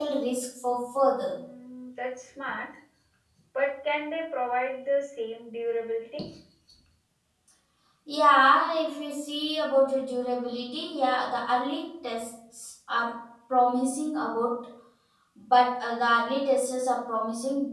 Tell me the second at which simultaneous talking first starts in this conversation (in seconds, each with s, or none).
none